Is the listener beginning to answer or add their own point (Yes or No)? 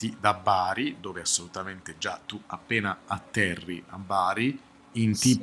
No